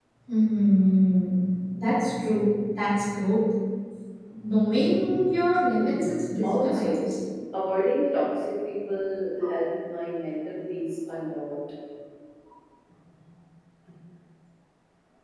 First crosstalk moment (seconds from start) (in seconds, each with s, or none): 5.8 s